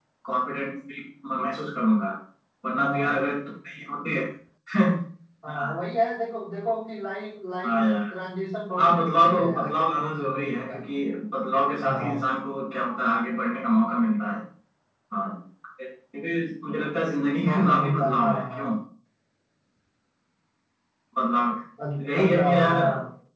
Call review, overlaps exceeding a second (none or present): present